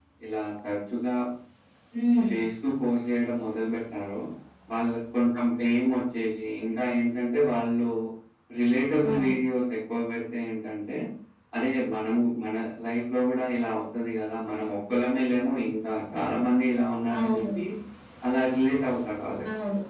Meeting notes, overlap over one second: none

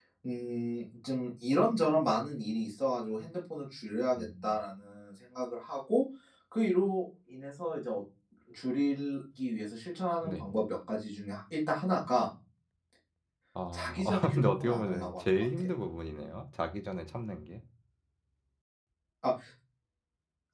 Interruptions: present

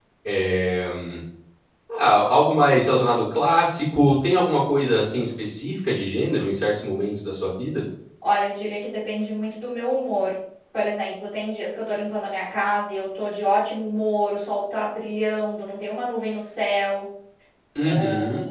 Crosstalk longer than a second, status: none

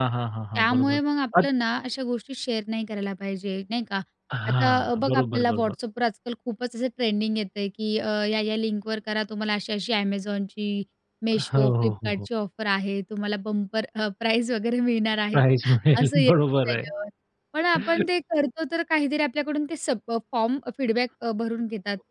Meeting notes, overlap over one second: present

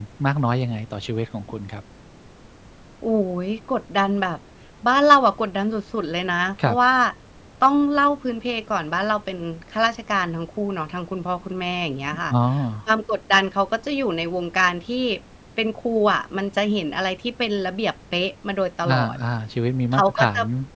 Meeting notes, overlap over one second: none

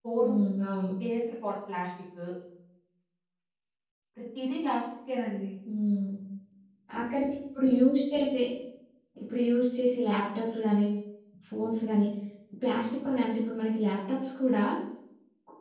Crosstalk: none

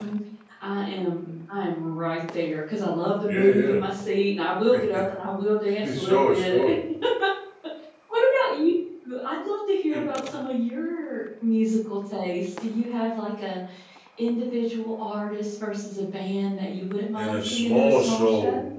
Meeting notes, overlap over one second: present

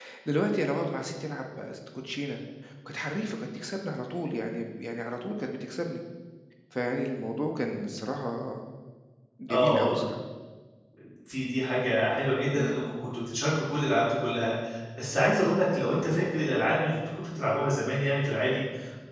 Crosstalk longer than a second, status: none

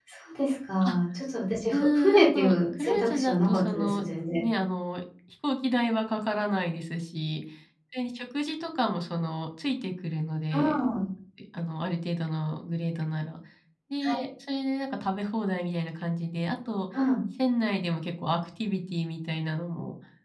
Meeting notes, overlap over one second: present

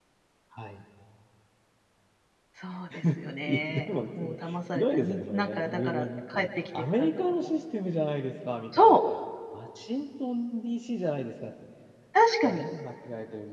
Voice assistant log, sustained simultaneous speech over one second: present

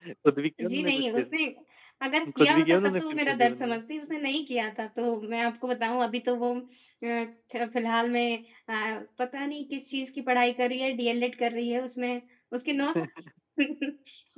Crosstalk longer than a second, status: present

